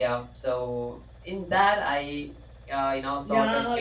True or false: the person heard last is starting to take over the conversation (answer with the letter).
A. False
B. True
B